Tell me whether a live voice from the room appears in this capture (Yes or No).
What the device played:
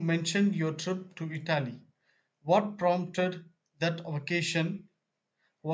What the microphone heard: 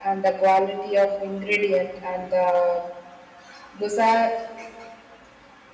Yes